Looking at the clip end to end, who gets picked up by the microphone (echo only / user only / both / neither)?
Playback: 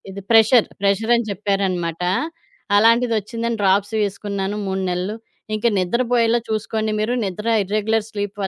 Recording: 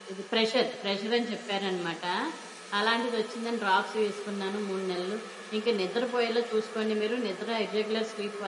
echo only